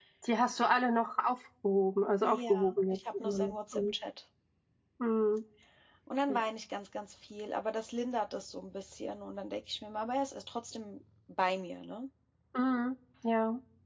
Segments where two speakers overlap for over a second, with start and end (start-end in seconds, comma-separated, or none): 2.2-3.8